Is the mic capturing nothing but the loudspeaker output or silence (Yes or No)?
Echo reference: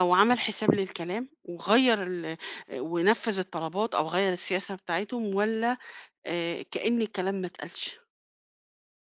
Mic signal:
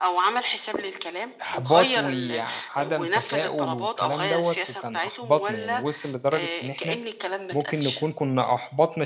No